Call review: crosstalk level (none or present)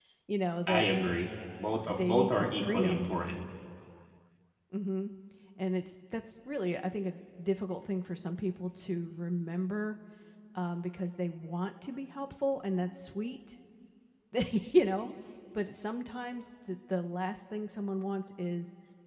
present